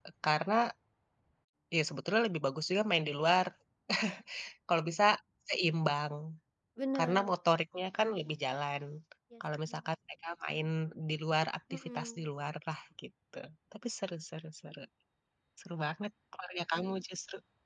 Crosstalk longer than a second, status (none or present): none